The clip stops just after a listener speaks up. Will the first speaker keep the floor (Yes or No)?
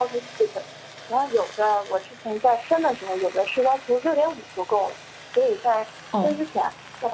Yes